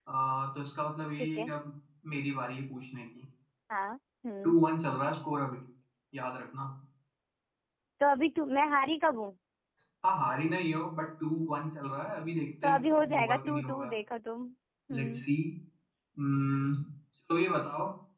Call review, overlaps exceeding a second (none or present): present